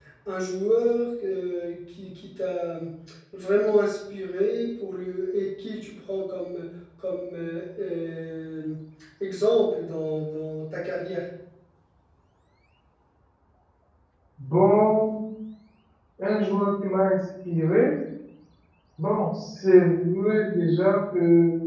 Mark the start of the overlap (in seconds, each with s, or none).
none